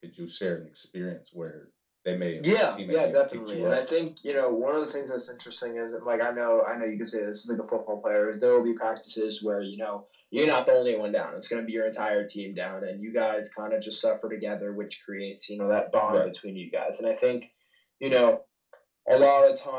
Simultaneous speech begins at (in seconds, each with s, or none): 2.4 s